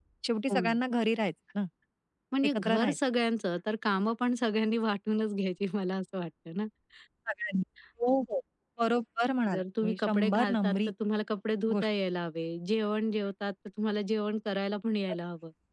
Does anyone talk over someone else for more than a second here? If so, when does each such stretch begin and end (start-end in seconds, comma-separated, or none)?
9.5-10.8